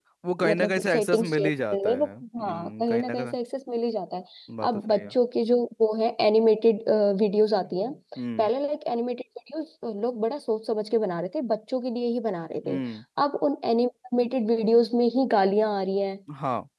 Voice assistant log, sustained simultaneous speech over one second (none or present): present